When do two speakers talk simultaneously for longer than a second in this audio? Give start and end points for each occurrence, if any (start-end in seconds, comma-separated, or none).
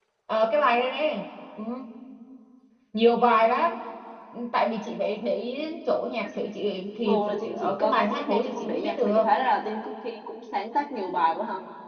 7.0-9.2